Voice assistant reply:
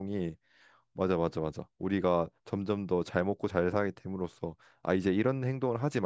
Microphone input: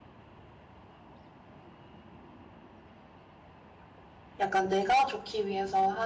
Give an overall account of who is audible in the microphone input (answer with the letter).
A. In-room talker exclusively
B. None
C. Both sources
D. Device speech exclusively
A